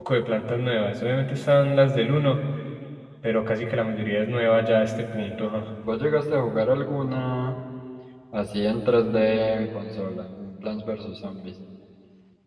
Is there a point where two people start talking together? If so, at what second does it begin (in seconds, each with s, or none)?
none